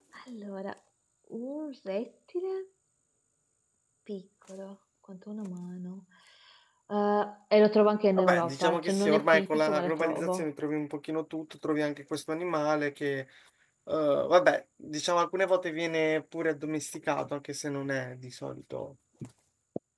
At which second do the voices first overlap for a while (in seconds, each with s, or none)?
8.2 s